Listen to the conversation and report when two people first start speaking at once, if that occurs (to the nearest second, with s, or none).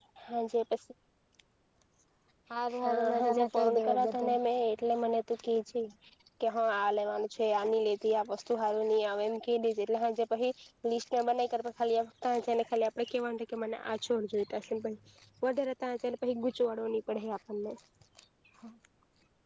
3 s